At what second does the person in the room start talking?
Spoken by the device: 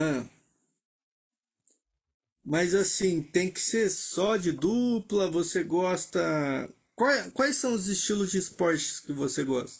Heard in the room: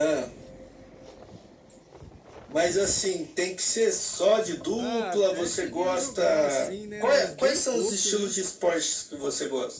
5 s

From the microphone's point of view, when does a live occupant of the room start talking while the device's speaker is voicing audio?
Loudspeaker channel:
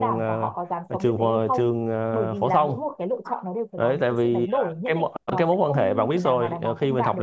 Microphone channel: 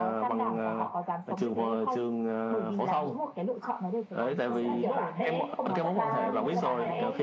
4 s

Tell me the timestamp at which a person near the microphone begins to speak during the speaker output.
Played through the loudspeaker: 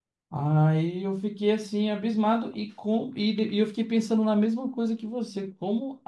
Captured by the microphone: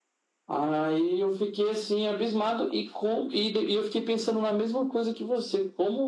none

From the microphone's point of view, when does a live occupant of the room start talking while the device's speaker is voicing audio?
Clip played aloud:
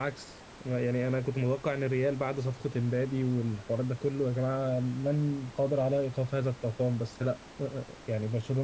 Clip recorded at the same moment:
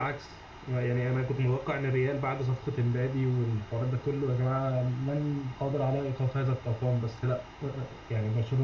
none

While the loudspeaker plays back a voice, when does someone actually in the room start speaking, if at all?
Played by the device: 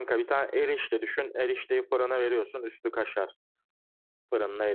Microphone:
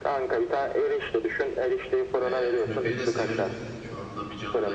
2 s

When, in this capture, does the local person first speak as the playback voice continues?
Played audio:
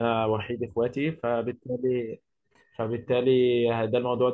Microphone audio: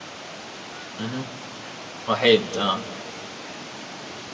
1 s

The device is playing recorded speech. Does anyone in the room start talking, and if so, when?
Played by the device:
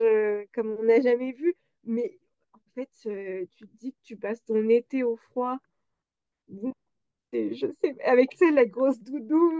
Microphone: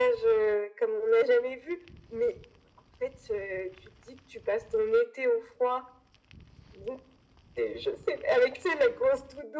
none

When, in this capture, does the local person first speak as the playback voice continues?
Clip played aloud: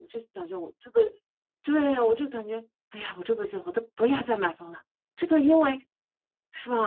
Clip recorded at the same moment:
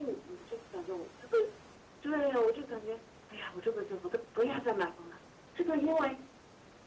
none

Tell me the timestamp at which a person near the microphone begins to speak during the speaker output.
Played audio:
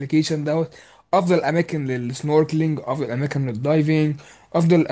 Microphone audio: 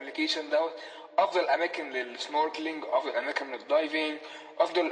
none

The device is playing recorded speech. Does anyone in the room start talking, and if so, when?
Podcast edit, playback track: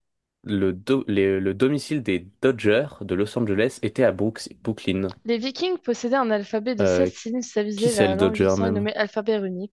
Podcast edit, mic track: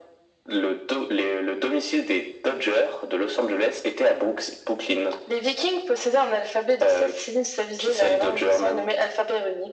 none

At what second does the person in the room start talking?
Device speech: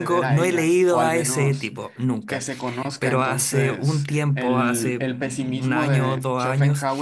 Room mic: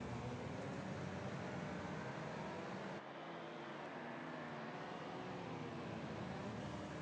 none

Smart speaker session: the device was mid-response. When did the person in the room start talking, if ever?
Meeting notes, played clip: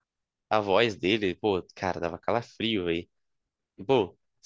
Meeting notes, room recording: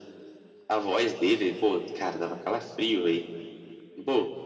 none

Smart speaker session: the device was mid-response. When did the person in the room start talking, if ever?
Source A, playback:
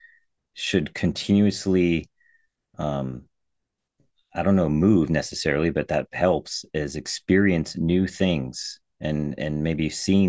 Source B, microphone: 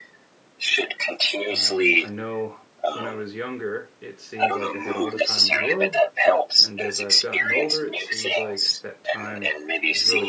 1 s

